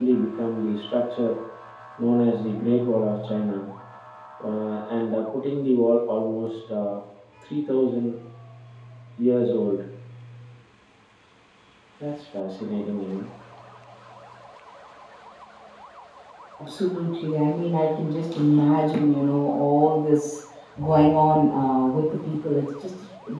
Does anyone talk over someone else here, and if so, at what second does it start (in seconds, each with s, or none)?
none